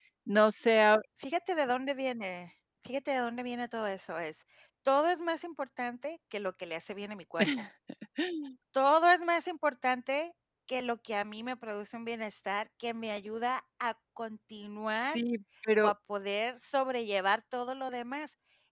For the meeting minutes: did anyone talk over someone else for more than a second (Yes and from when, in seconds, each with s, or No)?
No